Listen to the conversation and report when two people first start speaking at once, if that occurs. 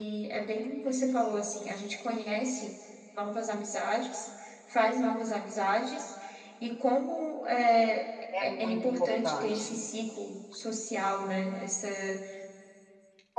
8.4 s

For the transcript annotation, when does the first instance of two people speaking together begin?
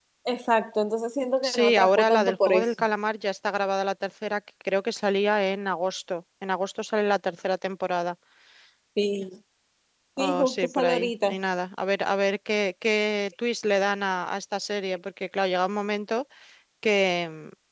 1.4 s

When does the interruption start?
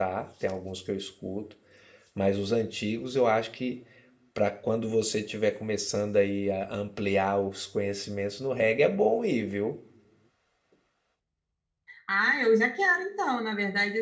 none

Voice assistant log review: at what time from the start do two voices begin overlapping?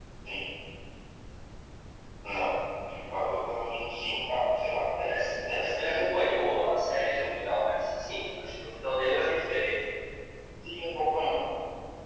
5.0 s

